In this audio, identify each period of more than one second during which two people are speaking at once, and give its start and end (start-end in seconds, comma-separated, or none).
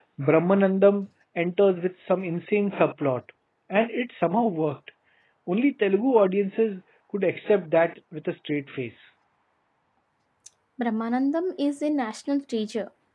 none